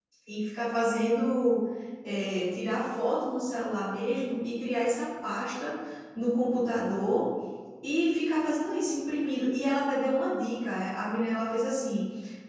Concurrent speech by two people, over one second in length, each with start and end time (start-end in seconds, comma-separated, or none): none